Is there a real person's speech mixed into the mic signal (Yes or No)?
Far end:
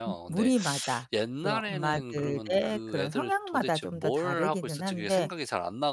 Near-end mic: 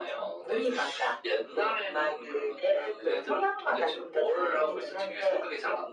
No